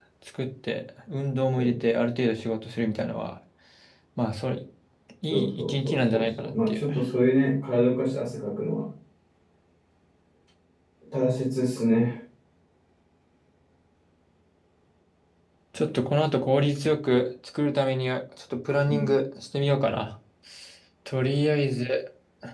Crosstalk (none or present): present